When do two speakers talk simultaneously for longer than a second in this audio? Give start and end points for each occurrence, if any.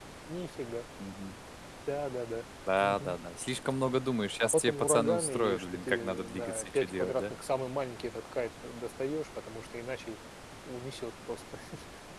4.4-7.3

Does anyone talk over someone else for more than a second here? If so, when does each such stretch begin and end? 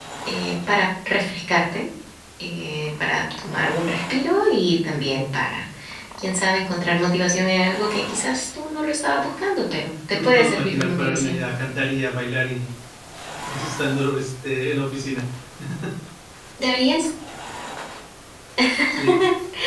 10.1-11.4

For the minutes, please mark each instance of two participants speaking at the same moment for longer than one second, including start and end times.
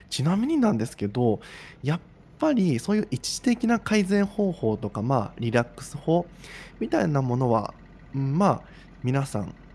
none

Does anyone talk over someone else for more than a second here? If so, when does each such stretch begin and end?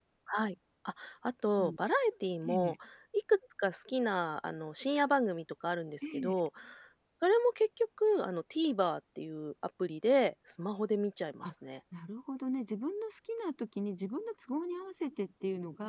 none

